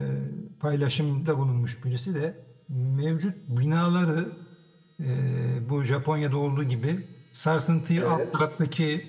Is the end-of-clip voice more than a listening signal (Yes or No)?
No